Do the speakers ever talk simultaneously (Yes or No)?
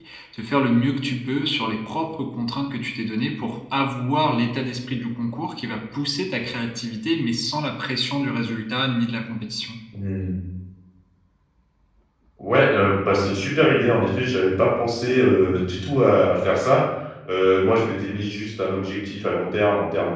No